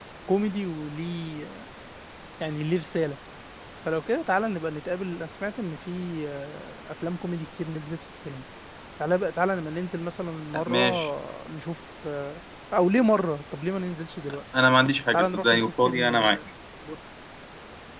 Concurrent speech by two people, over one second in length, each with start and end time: 15.1-16.4

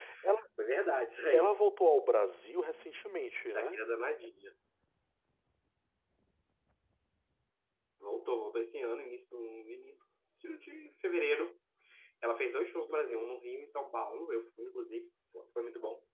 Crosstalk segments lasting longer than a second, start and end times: none

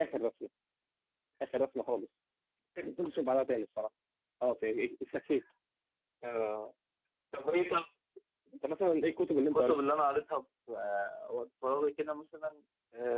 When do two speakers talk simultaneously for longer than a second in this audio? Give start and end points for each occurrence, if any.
none

